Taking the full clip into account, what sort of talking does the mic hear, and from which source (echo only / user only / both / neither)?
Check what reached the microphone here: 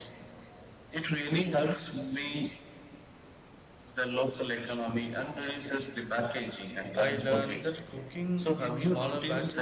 both